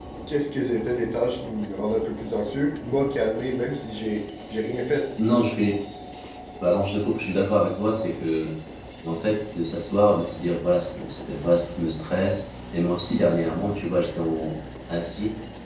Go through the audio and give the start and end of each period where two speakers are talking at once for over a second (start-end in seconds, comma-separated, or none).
none